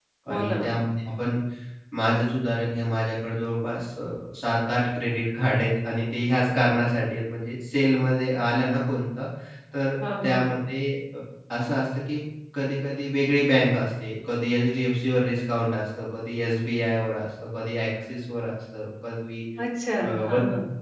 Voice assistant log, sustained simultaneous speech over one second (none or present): none